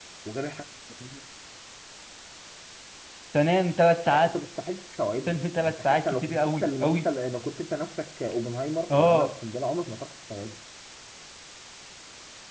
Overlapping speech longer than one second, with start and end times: 5.3-7.0

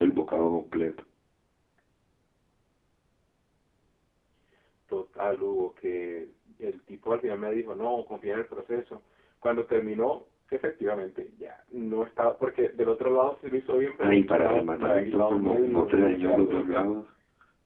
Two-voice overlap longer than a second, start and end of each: 14.0-16.9

